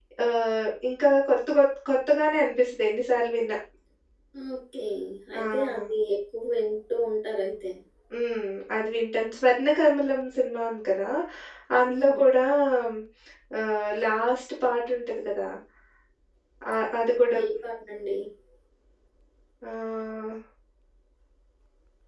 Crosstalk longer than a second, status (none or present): none